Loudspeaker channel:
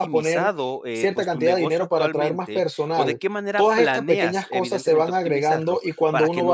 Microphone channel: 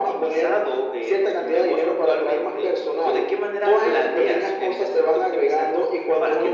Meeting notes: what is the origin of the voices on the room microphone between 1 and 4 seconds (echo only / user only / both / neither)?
echo only